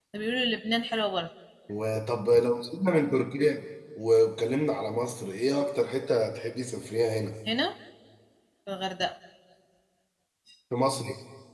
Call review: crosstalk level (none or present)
none